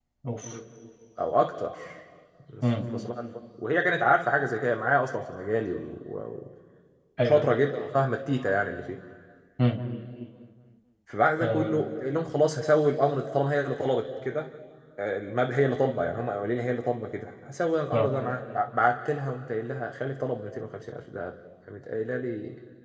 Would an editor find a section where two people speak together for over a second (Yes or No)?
No